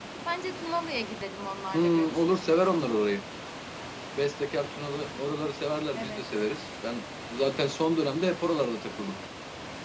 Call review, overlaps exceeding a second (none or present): present